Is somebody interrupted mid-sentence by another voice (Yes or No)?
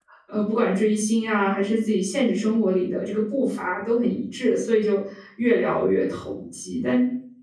No